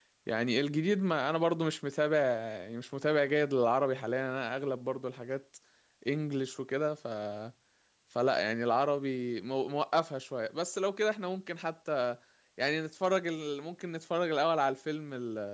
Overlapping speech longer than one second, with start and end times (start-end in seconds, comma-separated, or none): none